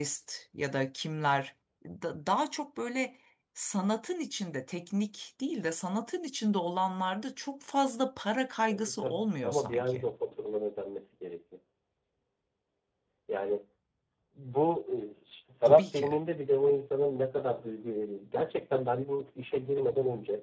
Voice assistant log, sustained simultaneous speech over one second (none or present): present